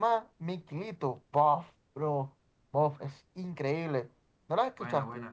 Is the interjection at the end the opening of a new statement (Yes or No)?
Yes